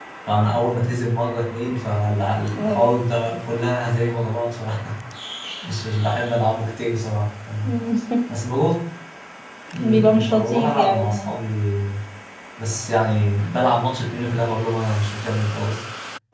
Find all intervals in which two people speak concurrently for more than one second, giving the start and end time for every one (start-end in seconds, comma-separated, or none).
9.8-11.3